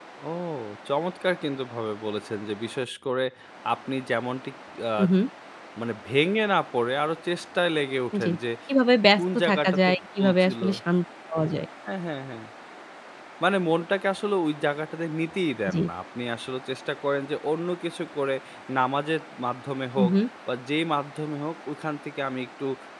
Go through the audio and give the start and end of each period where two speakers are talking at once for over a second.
9.2-10.6

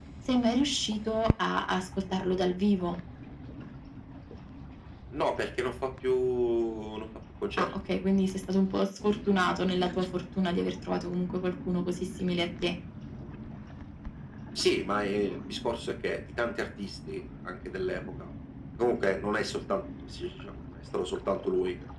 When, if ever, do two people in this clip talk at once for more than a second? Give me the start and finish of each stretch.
none

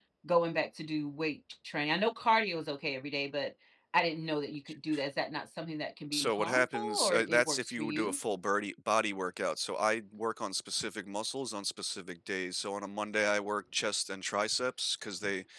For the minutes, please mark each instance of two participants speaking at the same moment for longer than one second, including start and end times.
6.1-8.2

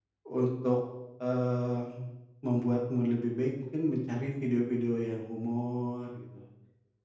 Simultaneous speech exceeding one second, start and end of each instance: none

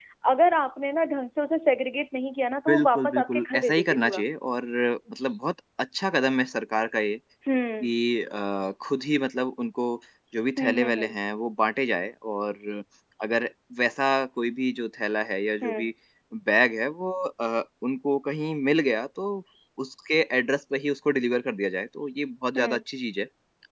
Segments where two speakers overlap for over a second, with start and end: 2.7-4.2

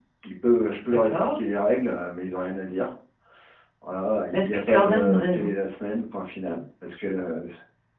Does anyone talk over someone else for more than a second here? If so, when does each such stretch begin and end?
4.3-5.5

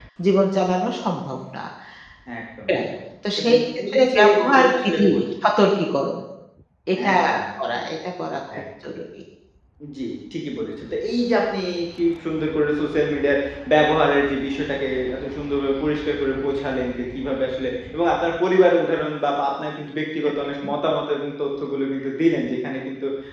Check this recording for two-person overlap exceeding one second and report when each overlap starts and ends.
3.4-5.3

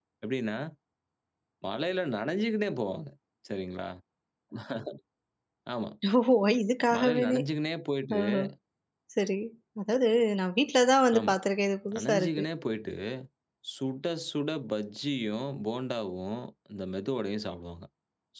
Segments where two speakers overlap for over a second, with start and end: none

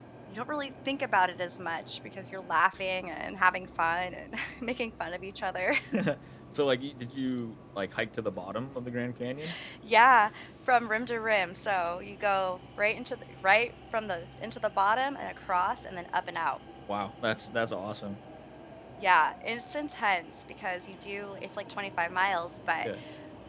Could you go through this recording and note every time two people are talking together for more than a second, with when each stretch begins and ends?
none

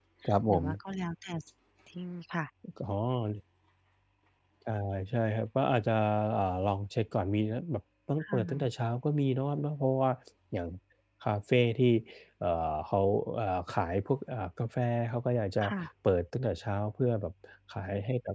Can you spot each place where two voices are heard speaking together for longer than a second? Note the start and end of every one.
none

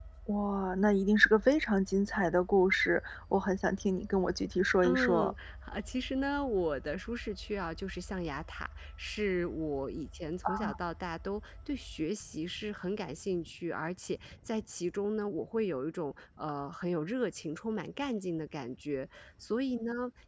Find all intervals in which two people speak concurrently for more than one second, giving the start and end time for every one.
none

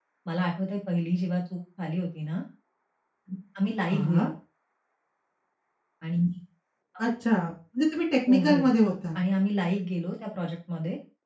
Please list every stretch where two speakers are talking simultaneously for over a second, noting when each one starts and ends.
none

